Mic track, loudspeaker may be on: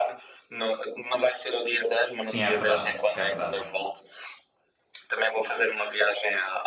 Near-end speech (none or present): present